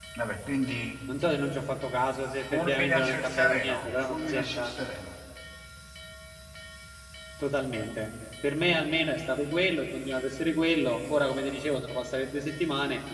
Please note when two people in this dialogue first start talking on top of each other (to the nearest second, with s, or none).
2 s